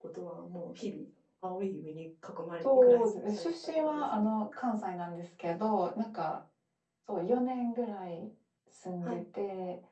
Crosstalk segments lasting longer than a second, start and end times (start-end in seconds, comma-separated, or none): 2.6-4.3